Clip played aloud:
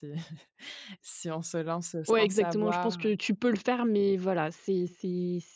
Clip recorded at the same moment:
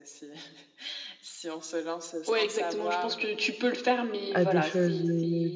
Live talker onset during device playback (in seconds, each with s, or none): 4.3 s